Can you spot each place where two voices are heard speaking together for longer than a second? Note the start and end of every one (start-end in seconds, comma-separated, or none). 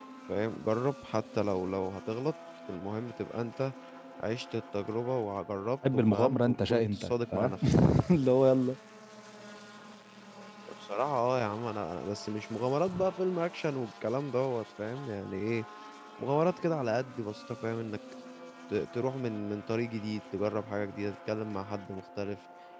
5.9-7.5